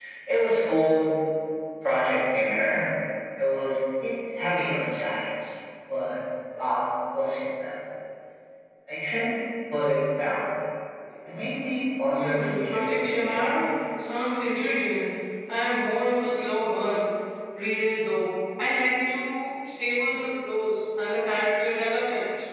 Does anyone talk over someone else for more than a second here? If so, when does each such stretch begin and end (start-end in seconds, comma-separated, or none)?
12.1-13.7